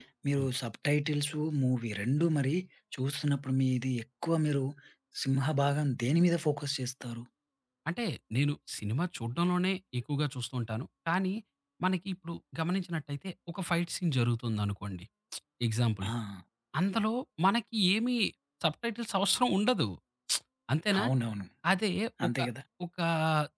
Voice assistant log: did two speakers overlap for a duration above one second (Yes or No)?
No